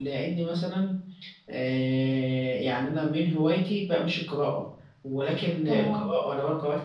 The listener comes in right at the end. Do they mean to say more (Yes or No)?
No